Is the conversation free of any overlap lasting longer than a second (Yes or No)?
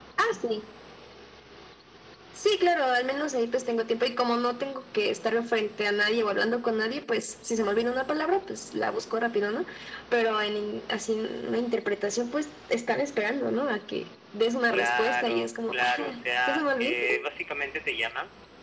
No